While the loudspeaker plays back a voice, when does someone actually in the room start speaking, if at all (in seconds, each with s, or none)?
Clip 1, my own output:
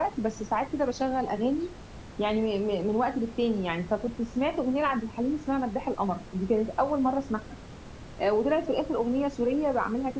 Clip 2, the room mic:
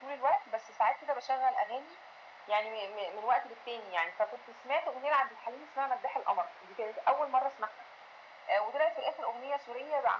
none